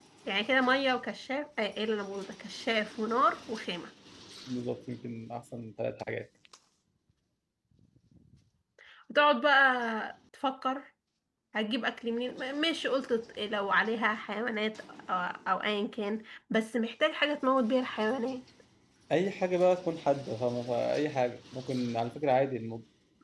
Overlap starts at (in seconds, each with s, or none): none